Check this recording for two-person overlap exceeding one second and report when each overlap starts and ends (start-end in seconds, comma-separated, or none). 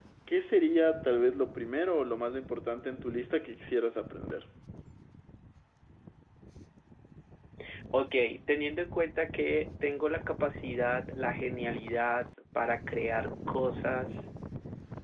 none